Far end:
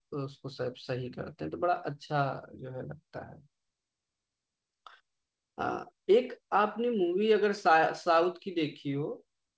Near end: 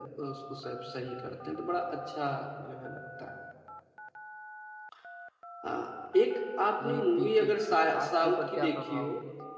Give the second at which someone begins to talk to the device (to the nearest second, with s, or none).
7 s